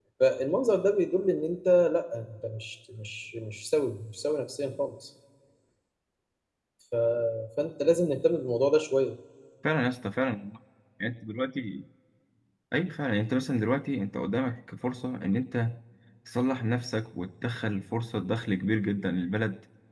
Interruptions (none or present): none